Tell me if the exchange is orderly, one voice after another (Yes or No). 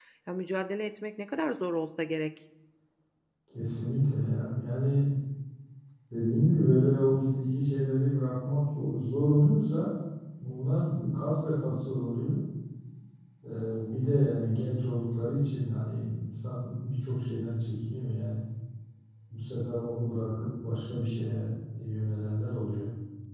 Yes